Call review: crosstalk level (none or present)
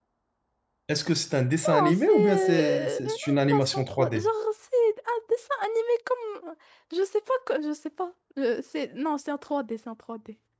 present